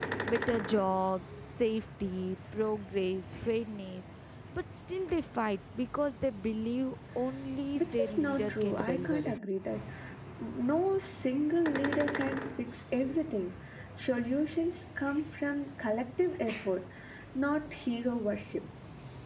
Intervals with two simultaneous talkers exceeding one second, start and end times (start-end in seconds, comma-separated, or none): 7.8-9.3